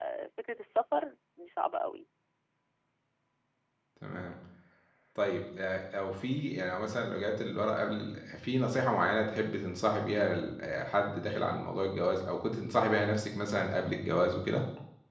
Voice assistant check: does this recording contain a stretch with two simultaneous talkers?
No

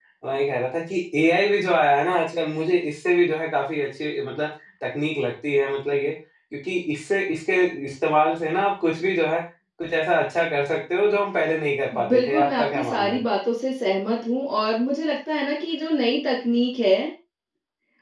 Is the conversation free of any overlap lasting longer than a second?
No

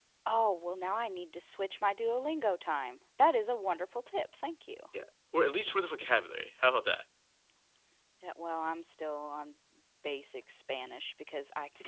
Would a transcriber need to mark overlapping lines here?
No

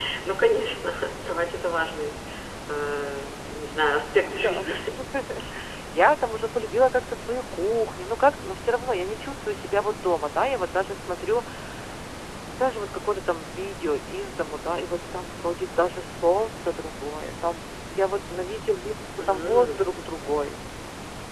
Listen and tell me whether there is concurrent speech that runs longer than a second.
No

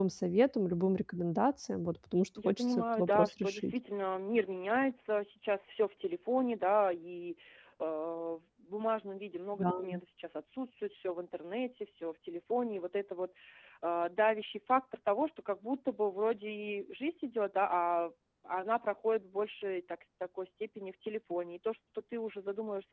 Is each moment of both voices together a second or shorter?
No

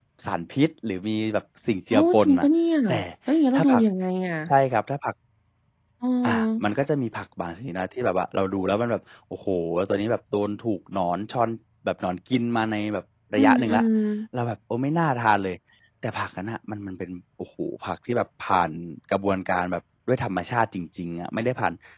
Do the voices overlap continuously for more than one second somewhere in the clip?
No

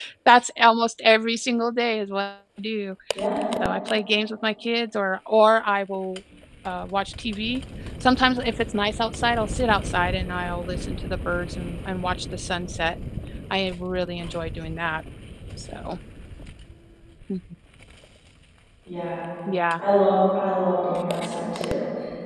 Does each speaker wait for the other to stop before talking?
Yes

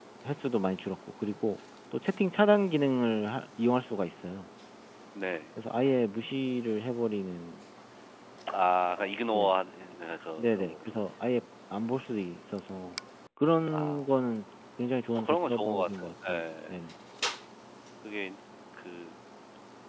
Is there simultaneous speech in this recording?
Yes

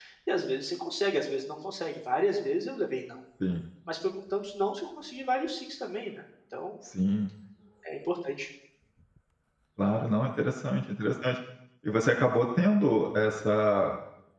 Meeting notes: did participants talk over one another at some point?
No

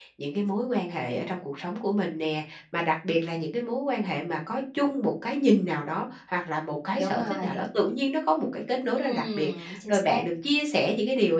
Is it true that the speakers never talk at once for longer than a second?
No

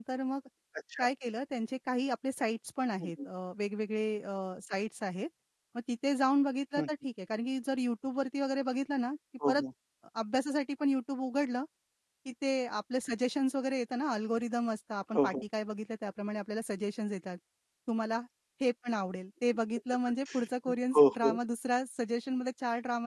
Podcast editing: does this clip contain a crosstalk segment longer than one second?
No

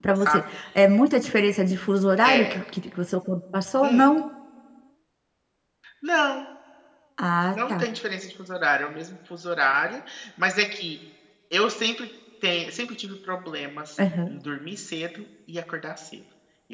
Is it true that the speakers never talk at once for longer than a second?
Yes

